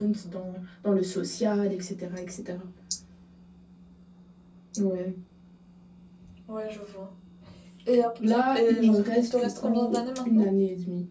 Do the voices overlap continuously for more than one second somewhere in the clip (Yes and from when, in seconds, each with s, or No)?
Yes, from 8.3 s